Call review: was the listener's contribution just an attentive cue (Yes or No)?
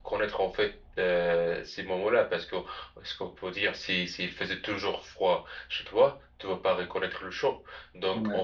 Yes